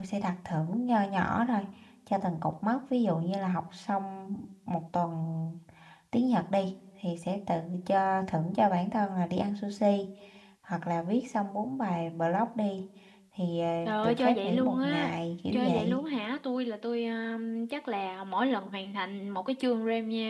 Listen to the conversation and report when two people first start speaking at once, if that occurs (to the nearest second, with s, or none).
14 s